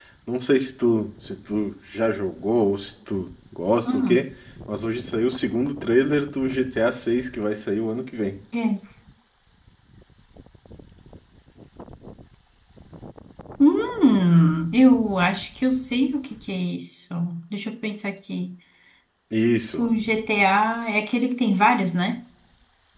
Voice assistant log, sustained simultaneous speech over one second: none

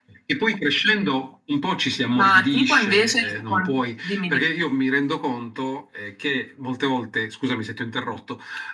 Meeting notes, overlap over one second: present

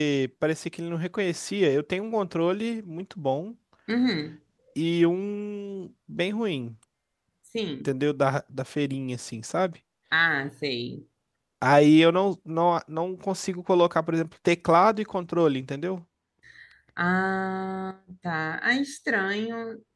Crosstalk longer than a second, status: none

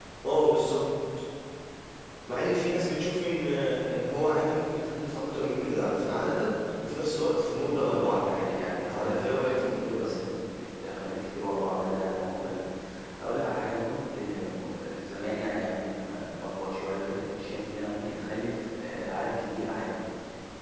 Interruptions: present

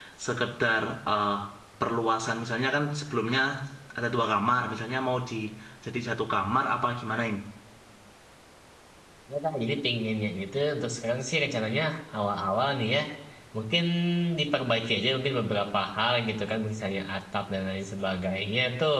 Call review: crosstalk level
none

